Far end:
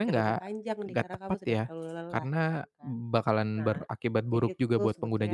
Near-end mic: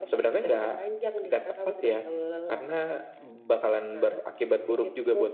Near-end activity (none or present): none